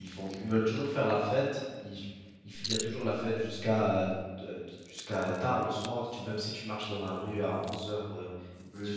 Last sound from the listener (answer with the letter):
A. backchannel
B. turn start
B